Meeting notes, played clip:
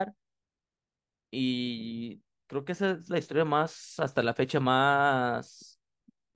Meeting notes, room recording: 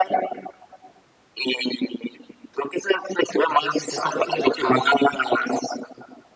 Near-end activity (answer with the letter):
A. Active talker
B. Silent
A